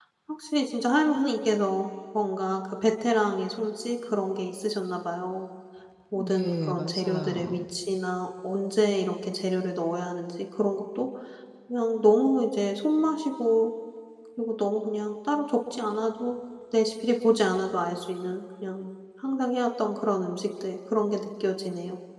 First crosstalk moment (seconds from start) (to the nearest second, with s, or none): 6 s